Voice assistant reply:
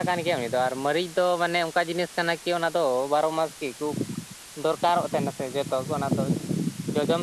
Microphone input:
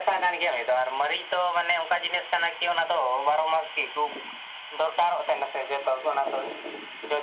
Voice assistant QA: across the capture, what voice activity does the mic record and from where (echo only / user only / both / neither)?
echo only